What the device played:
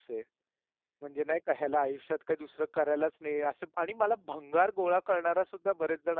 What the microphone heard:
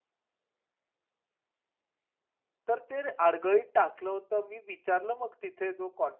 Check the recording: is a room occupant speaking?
Yes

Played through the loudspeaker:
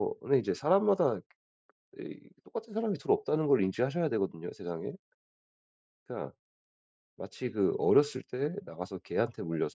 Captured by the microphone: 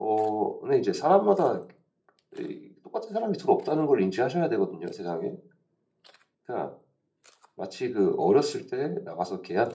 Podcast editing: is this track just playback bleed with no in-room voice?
Yes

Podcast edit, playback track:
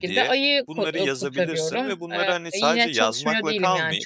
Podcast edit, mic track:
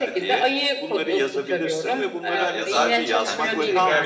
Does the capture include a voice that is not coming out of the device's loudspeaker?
Yes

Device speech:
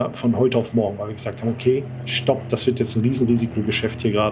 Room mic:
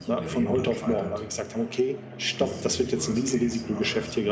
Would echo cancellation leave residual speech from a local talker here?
Yes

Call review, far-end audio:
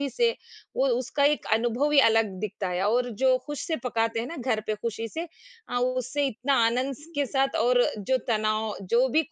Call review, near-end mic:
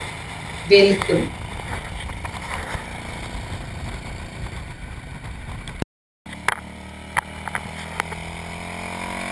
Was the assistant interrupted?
Yes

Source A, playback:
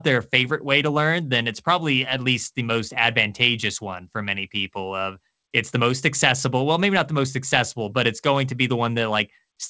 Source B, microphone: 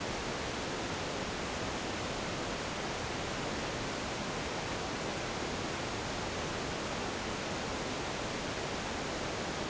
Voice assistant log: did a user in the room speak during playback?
No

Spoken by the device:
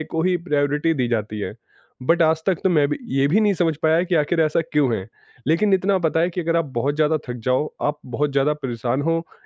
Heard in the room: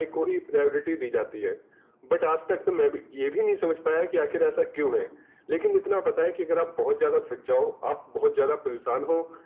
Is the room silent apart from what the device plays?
Yes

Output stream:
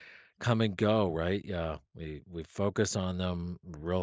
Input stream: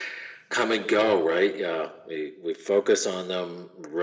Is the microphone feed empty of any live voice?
Yes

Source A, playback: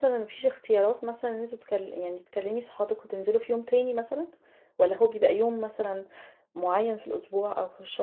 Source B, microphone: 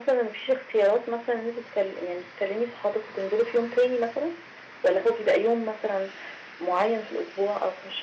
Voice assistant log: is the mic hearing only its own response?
Yes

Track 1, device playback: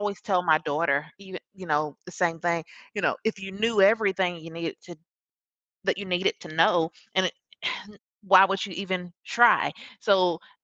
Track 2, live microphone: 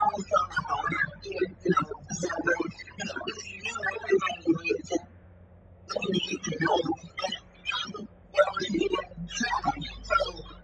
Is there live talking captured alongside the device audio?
No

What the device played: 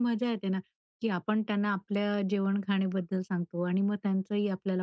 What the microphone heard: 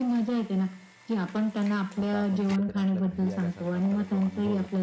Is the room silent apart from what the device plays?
No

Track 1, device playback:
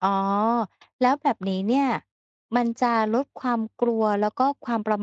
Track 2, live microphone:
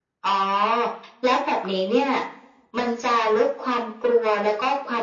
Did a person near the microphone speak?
No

